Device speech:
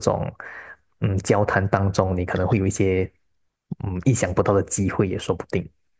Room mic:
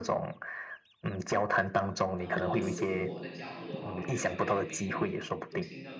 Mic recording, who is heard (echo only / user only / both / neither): both